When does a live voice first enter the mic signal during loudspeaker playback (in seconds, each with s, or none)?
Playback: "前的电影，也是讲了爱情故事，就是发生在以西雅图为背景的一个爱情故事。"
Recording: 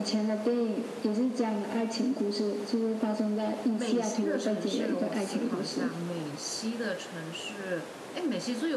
3.7 s